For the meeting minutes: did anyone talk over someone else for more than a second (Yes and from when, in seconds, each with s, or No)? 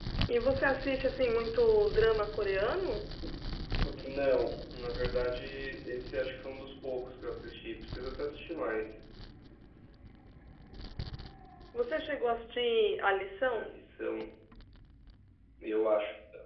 No